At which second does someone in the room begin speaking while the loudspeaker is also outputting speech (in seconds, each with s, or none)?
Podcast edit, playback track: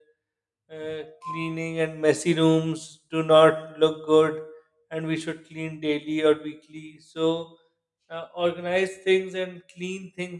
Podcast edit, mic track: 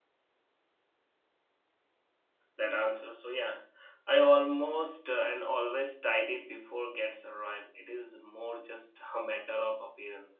2.5 s